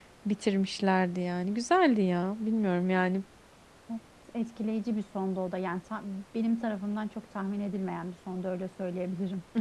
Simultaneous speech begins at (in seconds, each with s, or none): none